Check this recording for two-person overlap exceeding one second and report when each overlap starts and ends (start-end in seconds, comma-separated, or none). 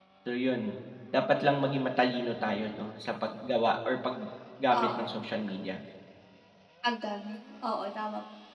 none